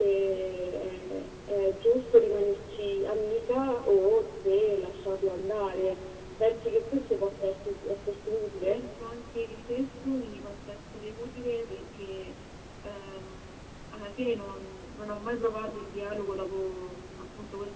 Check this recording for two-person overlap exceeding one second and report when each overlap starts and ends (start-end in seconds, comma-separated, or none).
none